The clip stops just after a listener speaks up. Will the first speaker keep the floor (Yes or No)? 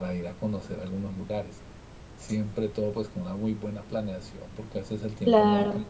Yes